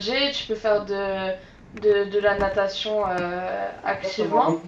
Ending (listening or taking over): taking over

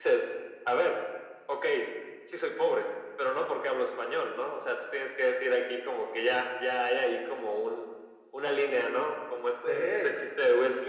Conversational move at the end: listening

